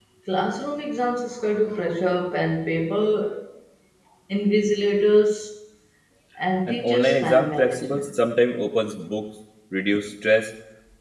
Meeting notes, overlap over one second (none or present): present